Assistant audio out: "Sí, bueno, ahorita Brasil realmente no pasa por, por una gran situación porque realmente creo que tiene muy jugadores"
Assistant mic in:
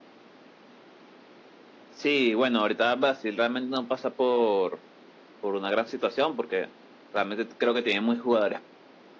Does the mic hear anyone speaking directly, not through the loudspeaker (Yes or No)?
No